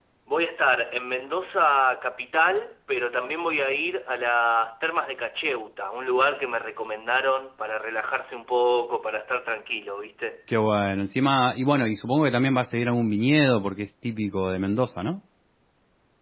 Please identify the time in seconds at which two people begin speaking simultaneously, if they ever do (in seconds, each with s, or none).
none